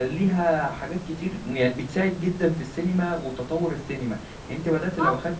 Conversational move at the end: listening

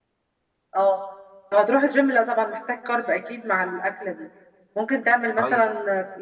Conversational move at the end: listening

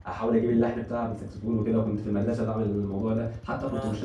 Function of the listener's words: listening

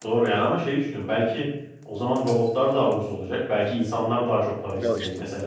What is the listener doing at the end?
taking over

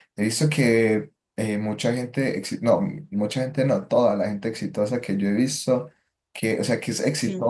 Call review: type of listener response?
listening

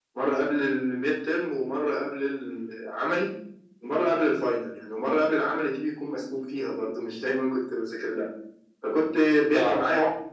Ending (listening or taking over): listening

